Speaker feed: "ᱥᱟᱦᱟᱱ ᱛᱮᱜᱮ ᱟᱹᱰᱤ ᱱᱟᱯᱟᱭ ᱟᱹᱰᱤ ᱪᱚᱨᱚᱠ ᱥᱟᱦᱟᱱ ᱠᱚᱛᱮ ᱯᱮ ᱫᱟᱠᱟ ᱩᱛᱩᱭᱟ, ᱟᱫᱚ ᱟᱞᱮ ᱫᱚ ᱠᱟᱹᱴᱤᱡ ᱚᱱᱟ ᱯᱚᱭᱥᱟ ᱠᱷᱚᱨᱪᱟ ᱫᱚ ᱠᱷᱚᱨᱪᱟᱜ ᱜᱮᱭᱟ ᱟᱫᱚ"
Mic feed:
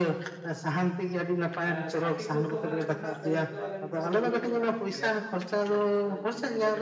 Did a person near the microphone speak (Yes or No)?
Yes